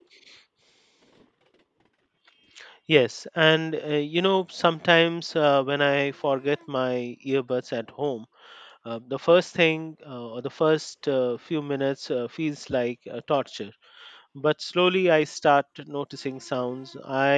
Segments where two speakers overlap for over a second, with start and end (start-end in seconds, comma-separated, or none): none